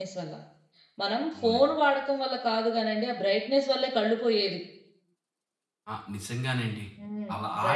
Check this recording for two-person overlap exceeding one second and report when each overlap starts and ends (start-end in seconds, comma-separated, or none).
none